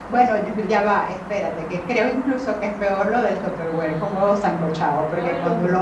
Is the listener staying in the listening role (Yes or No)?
Yes